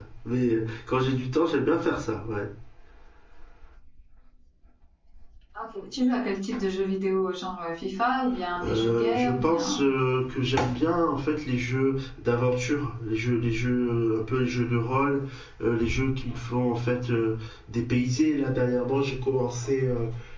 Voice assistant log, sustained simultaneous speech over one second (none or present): present